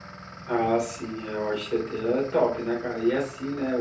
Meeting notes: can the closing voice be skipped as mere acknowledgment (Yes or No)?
Yes